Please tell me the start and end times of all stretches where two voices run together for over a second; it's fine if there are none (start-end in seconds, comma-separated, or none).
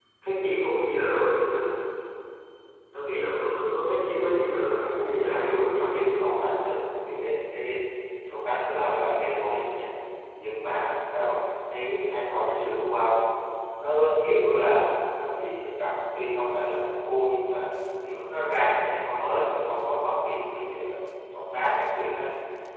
5.0-6.4